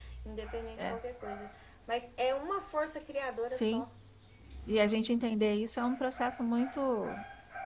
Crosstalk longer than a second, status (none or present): none